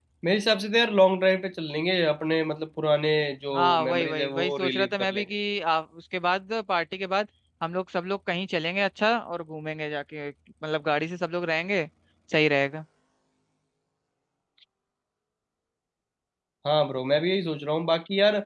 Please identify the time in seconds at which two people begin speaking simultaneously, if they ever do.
3.5 s

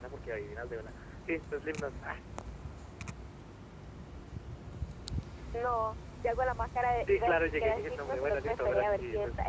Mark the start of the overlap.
7.1 s

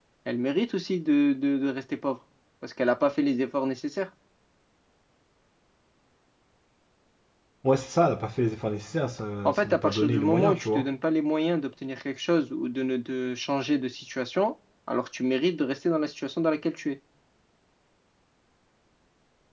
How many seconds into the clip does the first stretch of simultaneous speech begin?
9.4 s

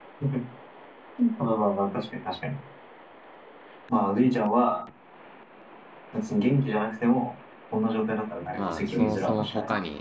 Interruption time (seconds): 8.5 s

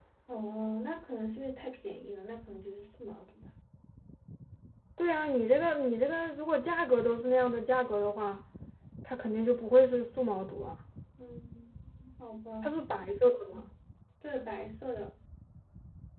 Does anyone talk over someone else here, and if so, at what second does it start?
none

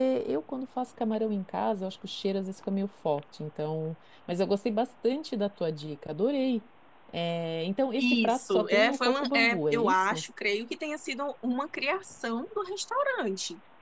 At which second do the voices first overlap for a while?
8.0 s

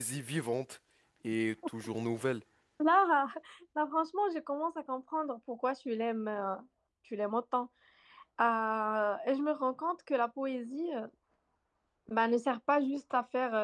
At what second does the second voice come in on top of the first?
none

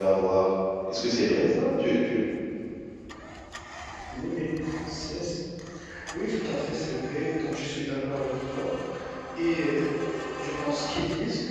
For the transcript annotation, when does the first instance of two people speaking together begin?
none

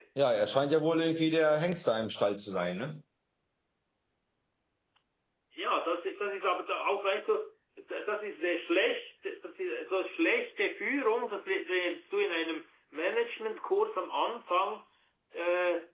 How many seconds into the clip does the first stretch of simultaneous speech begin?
none

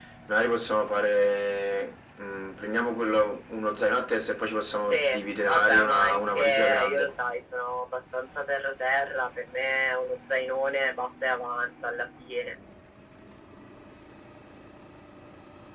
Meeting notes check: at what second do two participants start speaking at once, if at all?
4.8 s

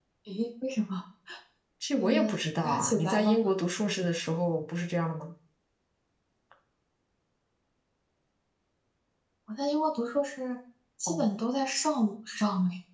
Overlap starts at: 2.0 s

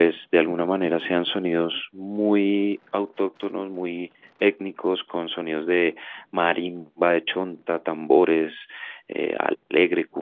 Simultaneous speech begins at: none

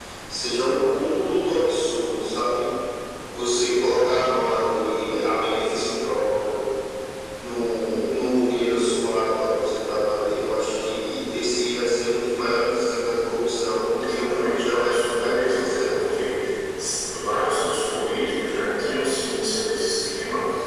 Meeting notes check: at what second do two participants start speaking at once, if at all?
14.0 s

